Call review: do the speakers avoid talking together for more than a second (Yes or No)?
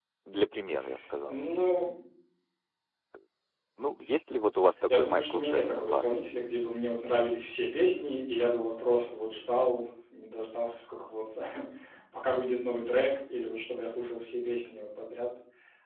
No